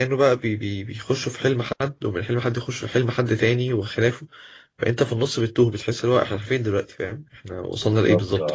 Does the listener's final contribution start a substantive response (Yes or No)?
Yes